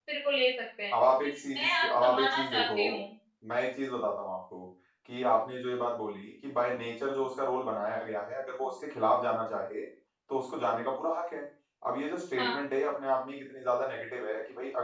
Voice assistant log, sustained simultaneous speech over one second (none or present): present